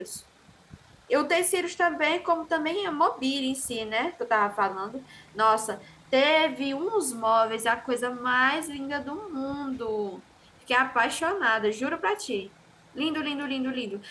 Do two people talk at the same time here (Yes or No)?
No